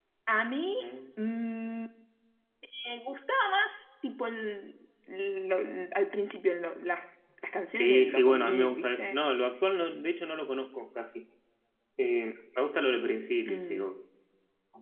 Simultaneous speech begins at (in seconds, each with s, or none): 7.8 s